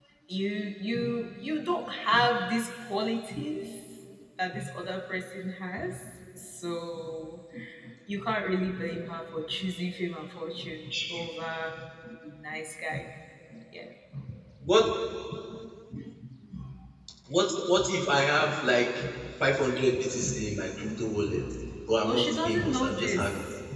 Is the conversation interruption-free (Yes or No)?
No